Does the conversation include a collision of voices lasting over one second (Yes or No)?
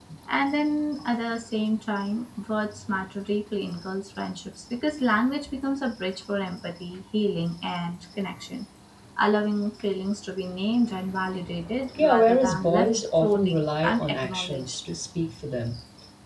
Yes